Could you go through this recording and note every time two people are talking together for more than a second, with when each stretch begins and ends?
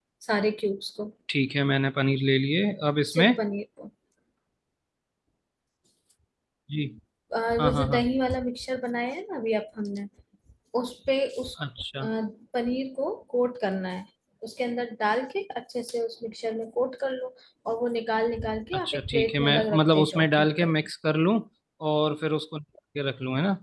18.7-20.7

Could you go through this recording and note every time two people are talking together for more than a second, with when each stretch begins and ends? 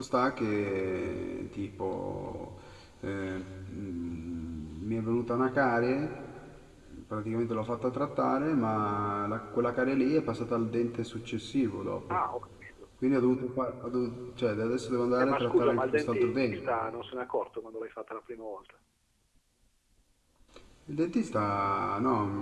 15.2-16.6

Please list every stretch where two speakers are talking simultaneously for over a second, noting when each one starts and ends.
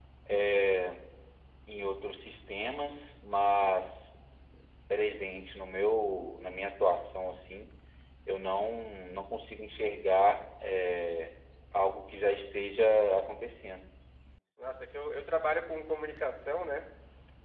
none

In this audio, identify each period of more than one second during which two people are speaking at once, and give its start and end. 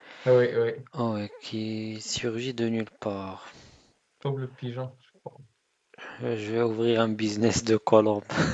none

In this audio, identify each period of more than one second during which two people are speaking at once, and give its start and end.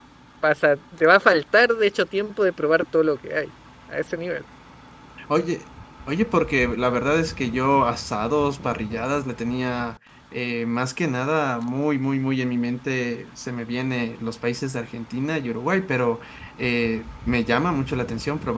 none

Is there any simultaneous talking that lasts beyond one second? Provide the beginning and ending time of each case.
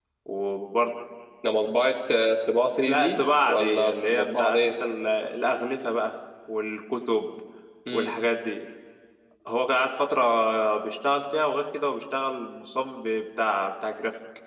2.8-4.7

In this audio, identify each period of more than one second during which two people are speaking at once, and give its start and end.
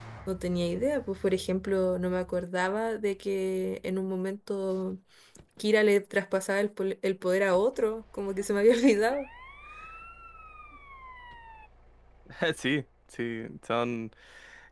none

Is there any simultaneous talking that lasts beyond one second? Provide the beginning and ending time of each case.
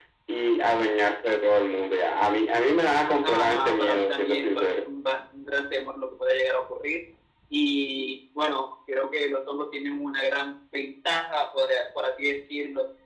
3.2-4.8

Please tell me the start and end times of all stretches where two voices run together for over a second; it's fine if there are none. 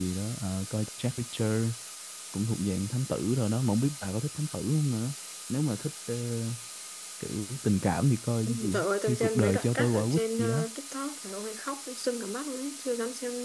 8.7-10.6

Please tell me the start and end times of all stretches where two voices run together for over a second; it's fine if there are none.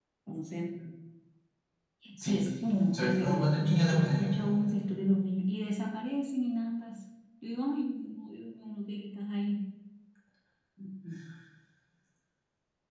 2.9-4.2

